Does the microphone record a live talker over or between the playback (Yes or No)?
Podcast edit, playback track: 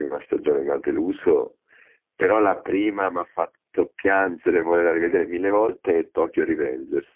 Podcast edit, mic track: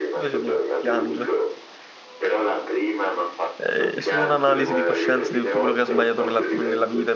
Yes